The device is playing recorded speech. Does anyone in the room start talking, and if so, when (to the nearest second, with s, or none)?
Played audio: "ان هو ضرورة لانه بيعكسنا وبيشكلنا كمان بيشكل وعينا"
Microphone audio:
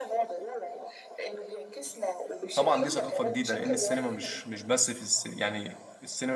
3 s